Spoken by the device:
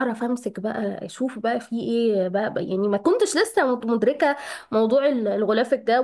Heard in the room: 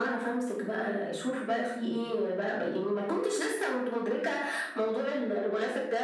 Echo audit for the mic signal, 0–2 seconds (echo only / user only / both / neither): echo only